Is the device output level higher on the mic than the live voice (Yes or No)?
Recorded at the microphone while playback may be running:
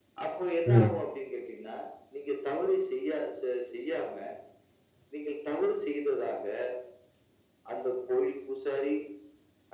No